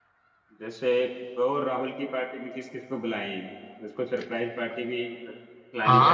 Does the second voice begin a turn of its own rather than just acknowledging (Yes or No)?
Yes